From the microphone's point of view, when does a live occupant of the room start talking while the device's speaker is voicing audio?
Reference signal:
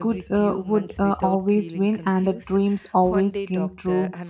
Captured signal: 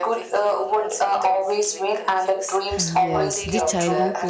2.7 s

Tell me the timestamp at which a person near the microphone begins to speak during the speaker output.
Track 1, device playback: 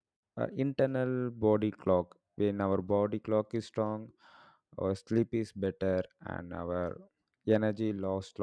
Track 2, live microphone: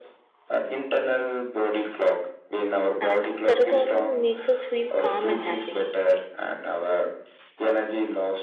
3.0 s

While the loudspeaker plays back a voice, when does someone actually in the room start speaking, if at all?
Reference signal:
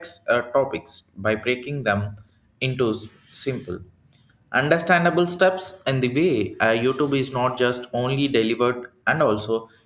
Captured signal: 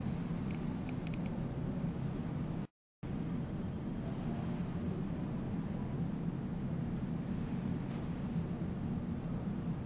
none

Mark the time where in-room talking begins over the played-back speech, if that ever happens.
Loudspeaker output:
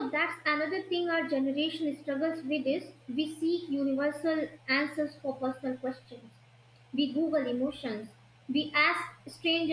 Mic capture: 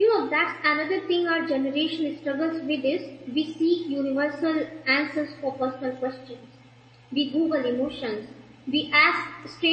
none

